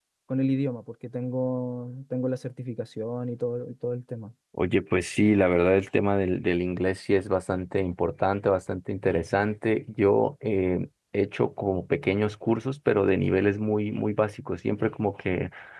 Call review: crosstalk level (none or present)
none